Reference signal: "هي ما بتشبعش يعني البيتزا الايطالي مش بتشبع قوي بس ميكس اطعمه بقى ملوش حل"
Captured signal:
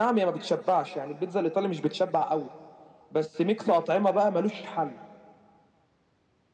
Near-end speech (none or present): none